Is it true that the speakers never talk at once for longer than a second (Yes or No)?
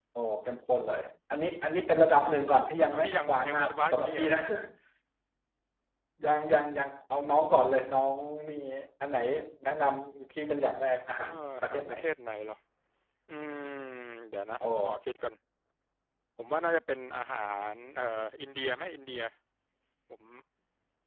No